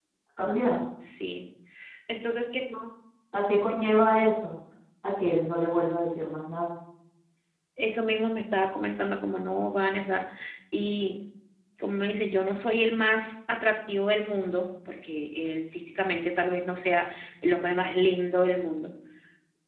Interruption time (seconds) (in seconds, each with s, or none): none